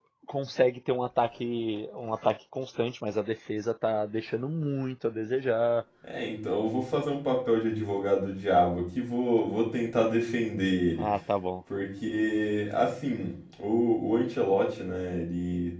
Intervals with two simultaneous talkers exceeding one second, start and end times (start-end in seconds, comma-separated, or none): none